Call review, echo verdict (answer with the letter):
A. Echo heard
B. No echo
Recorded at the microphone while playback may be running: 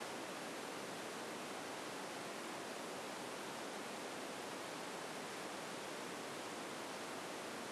B